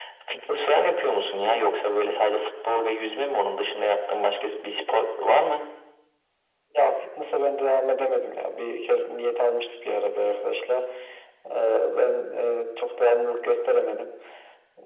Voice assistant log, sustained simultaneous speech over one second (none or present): none